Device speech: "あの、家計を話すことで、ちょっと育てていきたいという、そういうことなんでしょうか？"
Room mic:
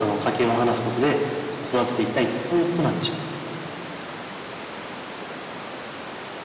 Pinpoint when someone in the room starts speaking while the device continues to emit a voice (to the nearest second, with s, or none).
none